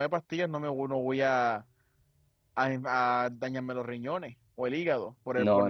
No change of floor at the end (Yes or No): No